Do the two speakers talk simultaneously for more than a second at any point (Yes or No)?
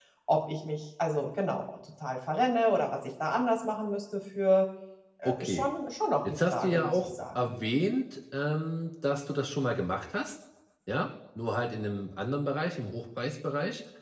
Yes